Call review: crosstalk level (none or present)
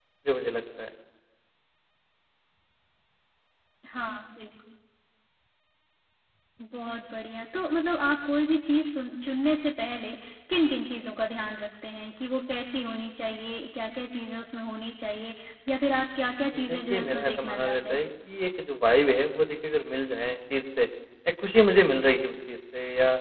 present